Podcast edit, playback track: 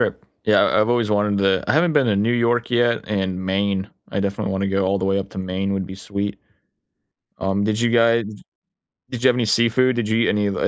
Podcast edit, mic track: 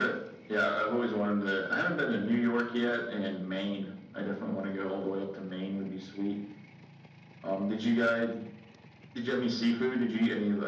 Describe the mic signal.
echo only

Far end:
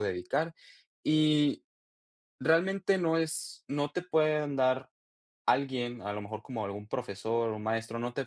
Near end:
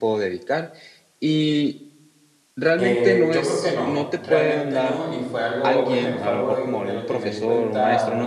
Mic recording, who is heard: both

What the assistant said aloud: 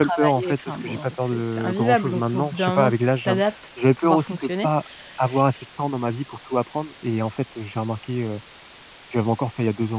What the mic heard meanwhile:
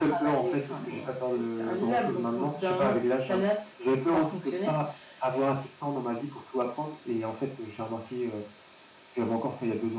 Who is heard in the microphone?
echo only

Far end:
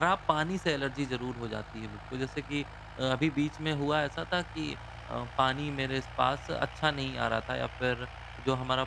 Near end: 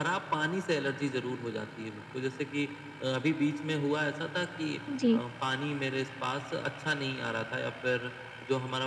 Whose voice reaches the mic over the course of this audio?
both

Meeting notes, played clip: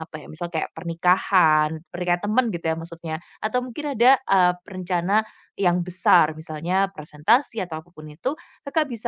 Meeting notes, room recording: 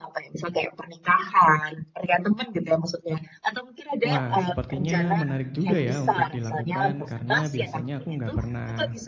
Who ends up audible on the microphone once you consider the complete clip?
both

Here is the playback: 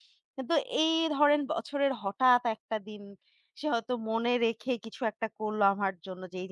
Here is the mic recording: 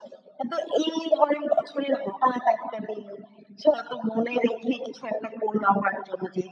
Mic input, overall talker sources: echo only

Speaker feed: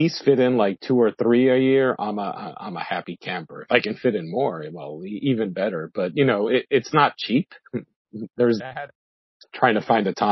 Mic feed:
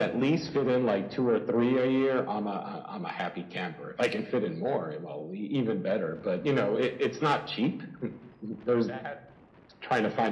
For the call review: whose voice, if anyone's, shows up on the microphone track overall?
echo only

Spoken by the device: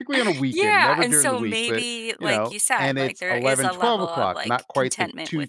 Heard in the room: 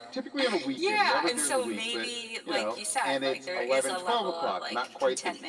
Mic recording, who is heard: echo only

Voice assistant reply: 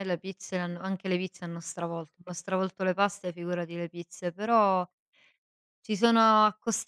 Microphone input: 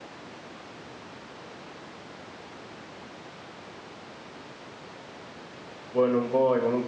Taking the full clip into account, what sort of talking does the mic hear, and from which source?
user only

